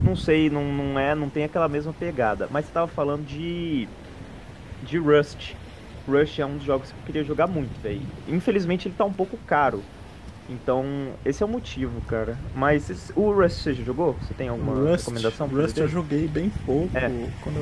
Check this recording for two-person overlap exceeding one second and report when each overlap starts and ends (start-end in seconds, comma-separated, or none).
14.6-15.9